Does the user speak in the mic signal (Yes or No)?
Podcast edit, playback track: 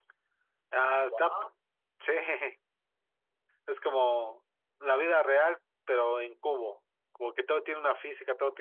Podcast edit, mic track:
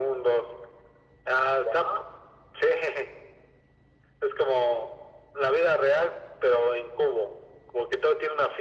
No